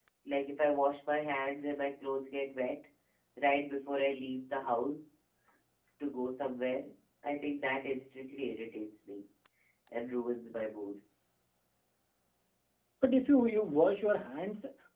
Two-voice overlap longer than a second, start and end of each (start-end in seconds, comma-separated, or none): none